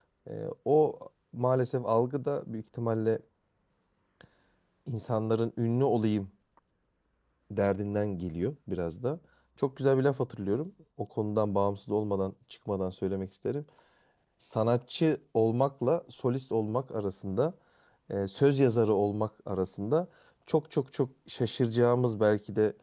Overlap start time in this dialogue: none

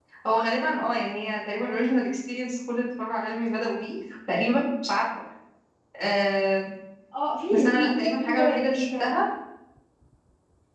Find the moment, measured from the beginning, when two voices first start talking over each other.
8 s

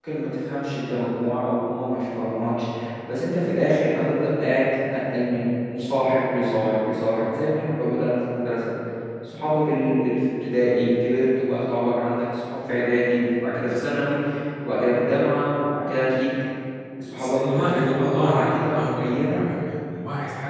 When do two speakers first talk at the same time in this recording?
17 s

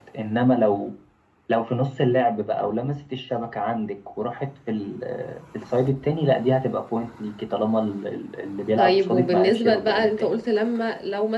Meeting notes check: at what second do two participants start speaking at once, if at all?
9 s

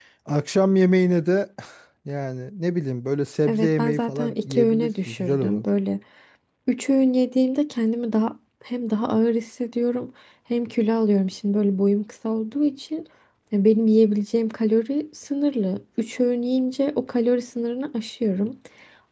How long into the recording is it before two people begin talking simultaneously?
3 s

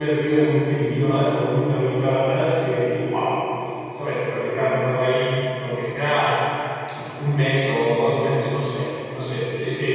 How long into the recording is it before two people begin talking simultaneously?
none

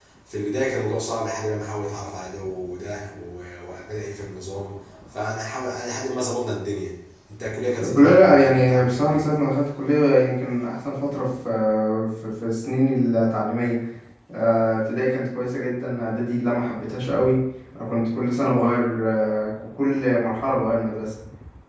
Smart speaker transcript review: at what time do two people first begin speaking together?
8 s

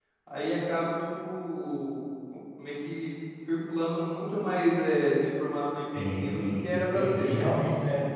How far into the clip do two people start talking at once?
6 s

